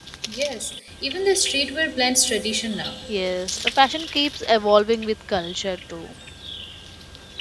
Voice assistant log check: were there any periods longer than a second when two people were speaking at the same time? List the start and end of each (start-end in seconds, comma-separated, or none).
none